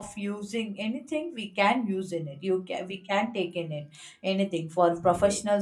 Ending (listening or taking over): listening